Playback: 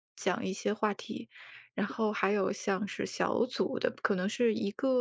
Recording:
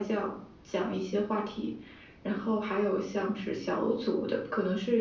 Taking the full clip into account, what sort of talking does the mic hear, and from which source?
echo only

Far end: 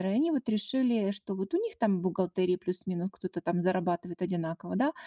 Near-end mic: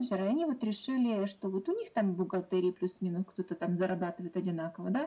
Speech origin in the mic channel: echo only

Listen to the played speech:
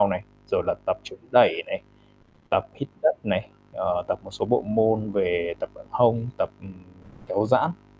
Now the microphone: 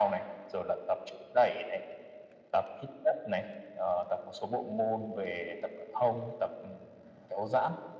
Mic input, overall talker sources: echo only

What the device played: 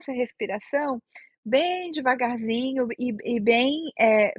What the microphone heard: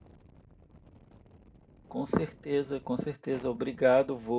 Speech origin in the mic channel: user only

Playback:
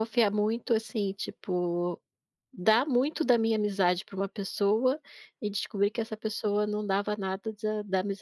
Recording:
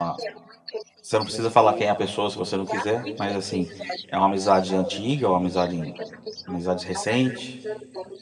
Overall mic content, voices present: both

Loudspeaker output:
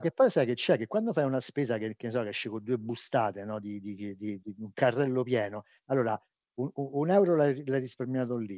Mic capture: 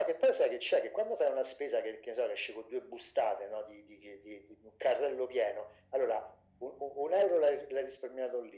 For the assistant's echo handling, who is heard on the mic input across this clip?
echo only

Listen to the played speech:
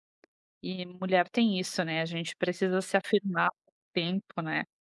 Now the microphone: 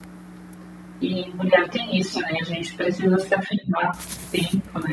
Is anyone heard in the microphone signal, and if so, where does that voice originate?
echo only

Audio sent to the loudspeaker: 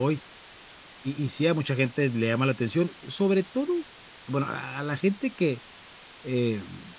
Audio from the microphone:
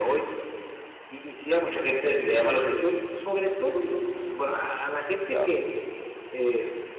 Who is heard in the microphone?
both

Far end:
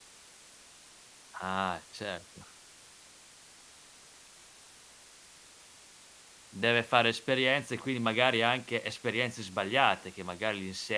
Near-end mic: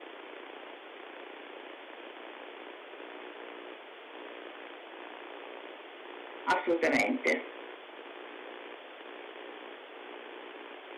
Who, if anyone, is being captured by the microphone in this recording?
user only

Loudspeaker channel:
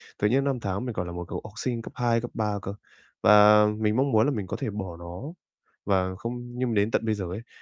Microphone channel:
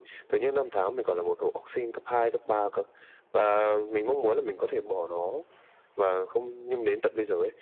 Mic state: echo only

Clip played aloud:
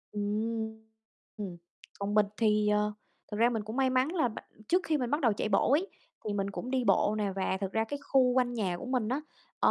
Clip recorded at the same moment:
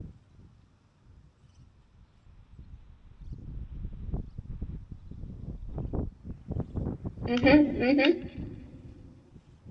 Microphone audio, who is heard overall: user only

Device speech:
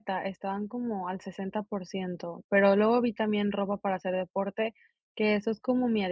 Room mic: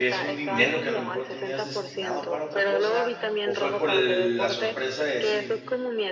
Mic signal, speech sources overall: both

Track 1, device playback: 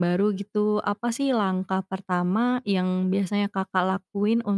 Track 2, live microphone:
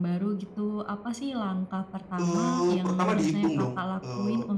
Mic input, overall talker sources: both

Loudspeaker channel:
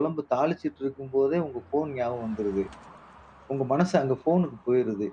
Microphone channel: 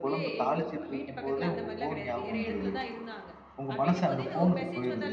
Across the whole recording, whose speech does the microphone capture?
both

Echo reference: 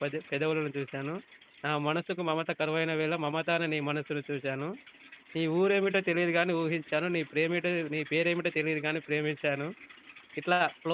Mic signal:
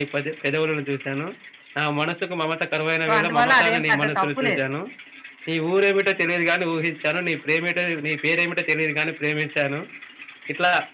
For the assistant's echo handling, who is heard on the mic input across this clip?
both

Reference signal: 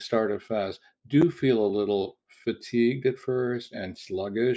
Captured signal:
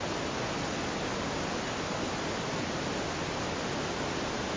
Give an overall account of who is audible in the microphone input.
neither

